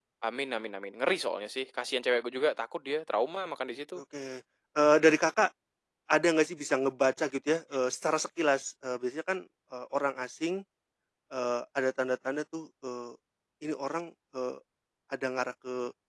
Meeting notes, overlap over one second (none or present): none